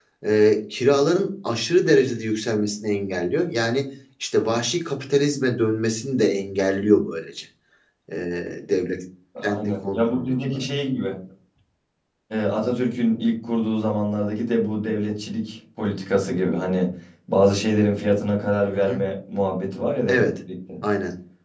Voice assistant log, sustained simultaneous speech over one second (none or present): present